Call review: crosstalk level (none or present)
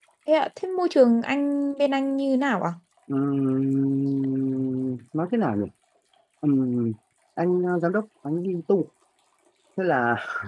none